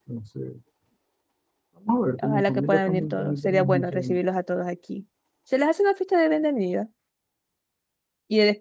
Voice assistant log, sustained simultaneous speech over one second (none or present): present